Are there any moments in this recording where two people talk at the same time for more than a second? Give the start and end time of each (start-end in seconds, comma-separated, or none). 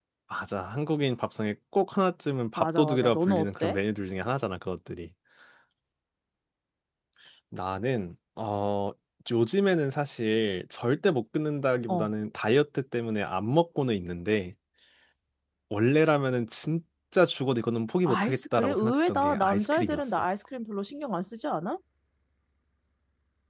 2.6-3.8, 18.1-20.0